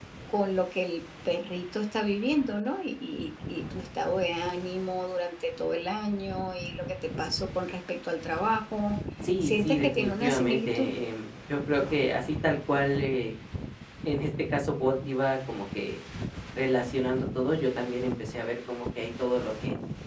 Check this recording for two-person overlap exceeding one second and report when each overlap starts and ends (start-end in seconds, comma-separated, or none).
9.4-10.9